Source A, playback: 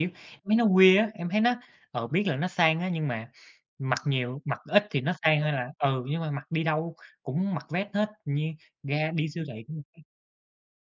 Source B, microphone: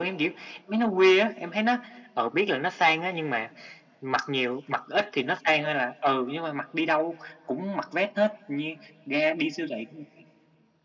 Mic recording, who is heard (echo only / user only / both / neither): echo only